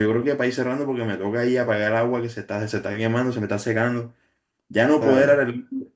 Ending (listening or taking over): listening